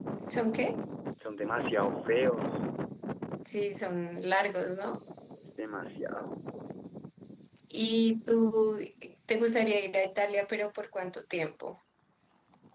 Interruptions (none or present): none